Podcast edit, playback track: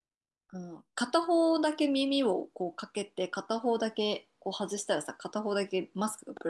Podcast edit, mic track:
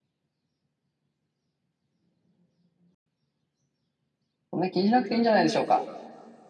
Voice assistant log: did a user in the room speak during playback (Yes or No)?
Yes